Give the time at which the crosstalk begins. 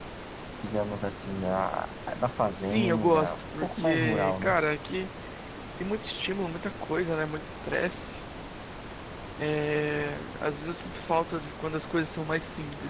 2.5 s

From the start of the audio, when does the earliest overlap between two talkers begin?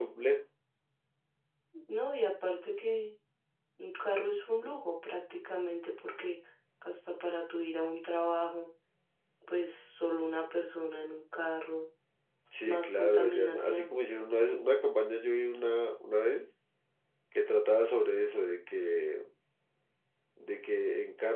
12.7 s

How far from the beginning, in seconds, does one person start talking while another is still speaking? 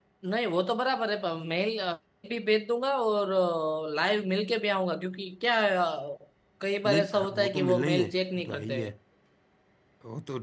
6.8 s

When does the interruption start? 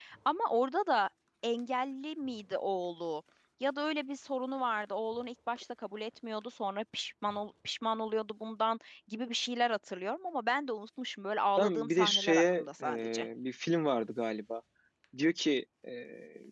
11.6 s

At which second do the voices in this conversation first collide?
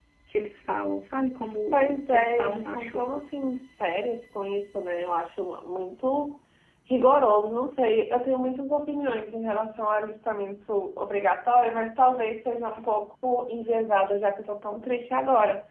2.0 s

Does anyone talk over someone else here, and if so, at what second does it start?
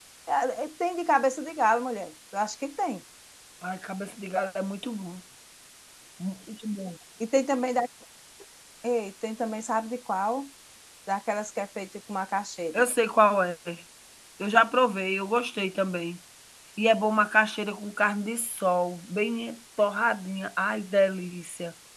none

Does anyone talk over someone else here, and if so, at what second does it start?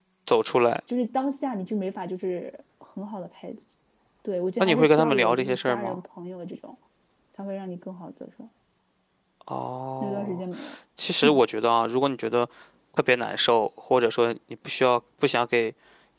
4.6 s

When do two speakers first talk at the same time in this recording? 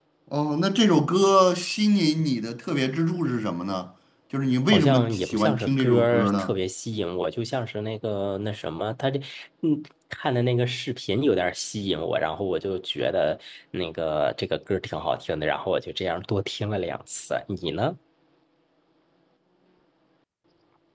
4.7 s

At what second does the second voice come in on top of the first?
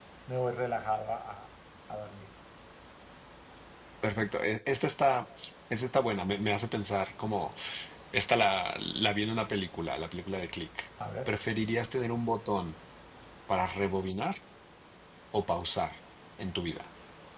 none

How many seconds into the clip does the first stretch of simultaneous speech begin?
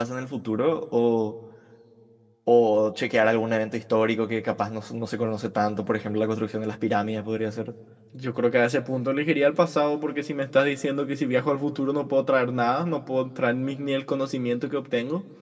none

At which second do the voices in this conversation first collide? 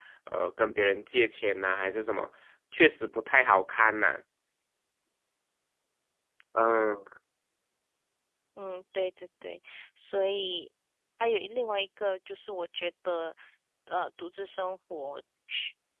none

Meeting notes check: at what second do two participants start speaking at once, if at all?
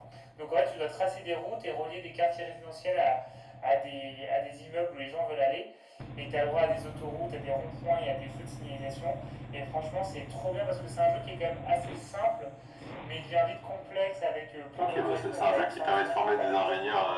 14.8 s

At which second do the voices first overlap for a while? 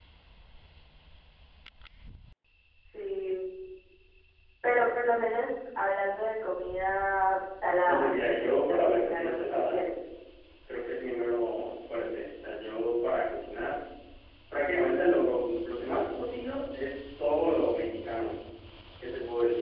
7.8 s

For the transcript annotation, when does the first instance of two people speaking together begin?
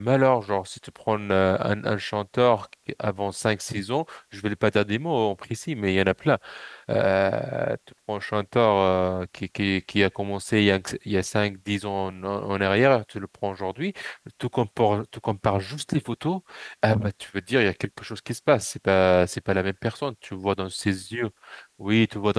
none

